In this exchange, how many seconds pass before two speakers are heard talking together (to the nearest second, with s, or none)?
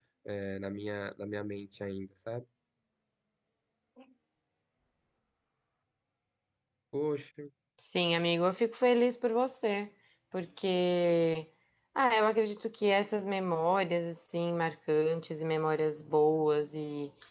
none